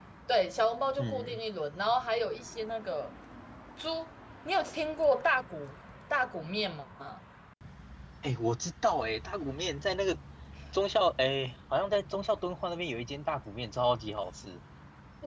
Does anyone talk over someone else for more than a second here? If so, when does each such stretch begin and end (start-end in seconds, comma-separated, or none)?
none